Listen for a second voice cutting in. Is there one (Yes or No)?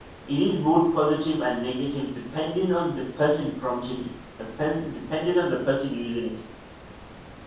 No